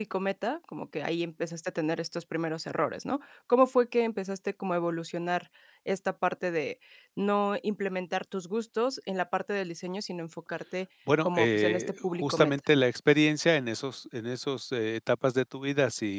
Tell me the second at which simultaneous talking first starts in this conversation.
11.1 s

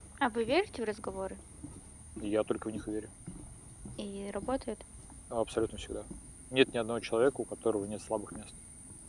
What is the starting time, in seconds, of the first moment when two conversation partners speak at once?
none

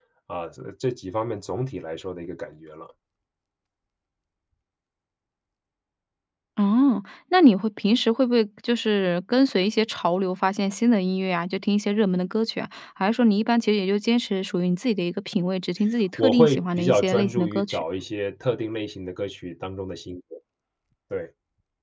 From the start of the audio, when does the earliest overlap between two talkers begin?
16.2 s

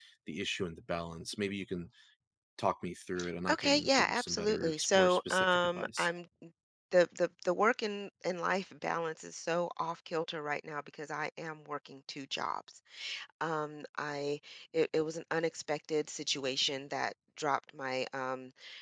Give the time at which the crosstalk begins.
3.5 s

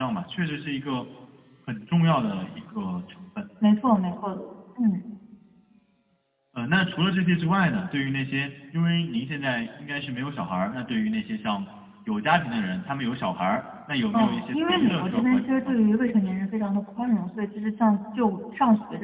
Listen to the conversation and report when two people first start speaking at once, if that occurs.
14.1 s

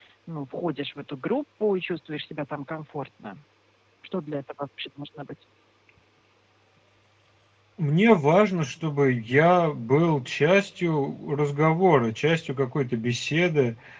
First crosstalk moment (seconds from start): none

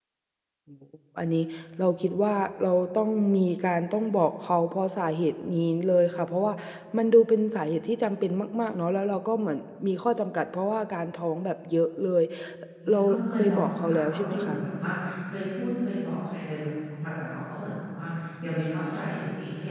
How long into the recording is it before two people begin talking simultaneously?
12.9 s

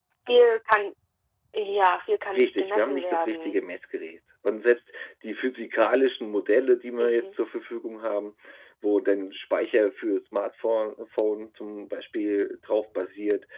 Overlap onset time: 2.3 s

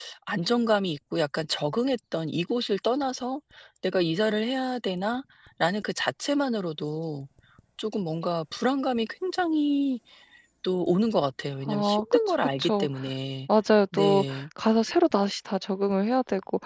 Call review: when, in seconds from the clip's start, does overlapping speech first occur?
11.7 s

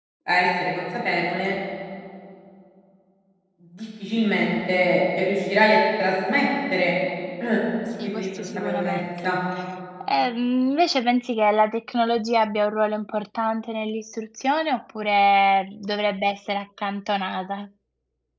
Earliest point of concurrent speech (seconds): 8.0 s

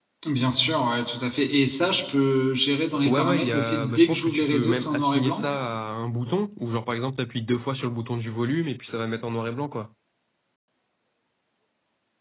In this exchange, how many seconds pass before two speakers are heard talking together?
2.9 s

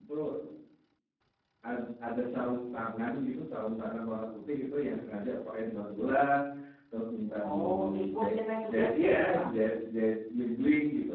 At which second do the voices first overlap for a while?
7.4 s

